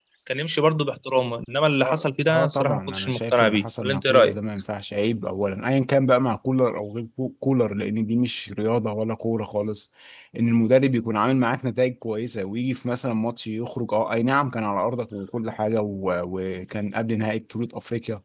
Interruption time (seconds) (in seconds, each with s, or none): 1.8 s